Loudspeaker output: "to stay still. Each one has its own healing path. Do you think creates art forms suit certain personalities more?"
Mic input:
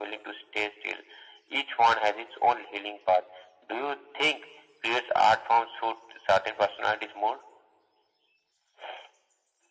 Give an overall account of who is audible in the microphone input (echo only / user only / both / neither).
echo only